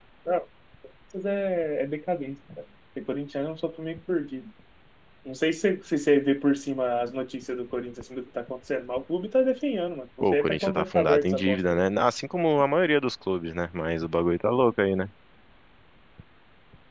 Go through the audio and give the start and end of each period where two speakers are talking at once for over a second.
10.3-11.8

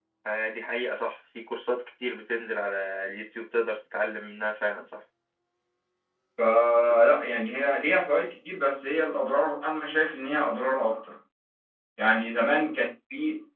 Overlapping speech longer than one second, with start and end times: none

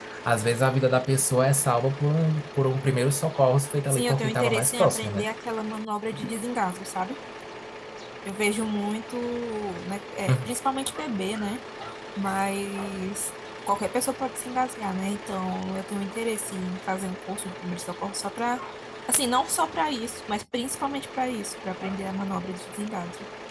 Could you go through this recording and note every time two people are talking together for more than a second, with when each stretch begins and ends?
3.9-5.2

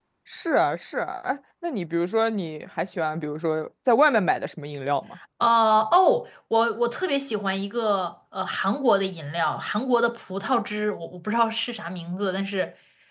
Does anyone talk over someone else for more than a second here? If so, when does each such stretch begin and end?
none

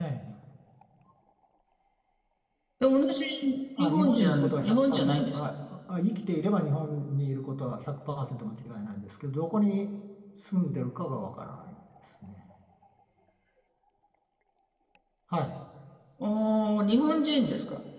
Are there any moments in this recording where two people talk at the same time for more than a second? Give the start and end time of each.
3.8-5.4

